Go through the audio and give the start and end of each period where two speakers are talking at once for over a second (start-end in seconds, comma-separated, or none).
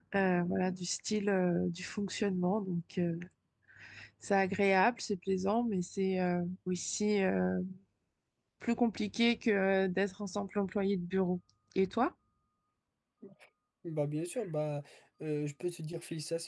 none